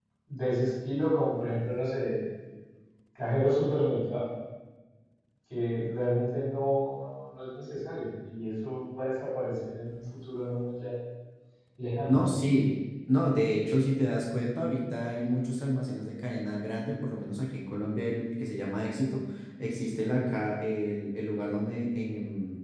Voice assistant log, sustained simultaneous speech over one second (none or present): none